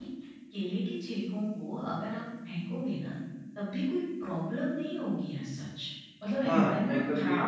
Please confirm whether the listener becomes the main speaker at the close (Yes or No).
Yes